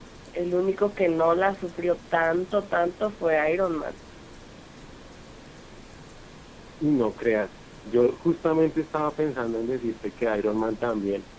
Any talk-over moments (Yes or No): No